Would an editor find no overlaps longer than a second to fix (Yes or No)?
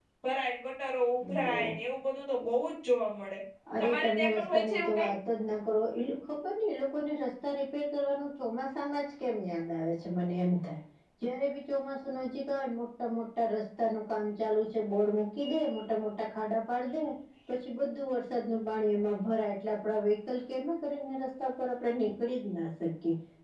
No